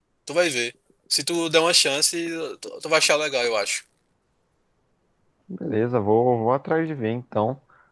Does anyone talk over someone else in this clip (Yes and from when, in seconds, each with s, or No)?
No